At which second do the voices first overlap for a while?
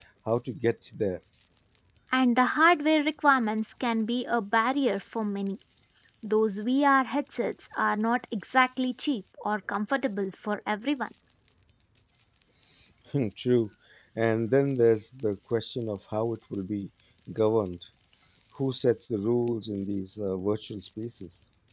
none

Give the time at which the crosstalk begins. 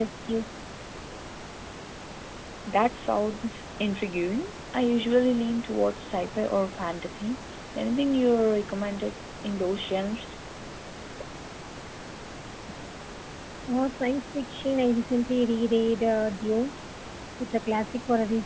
none

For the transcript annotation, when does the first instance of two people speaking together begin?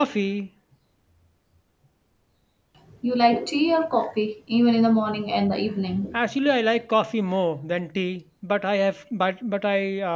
none

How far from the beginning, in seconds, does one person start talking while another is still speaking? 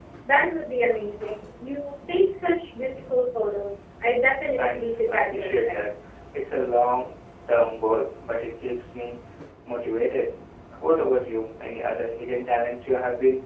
4.6 s

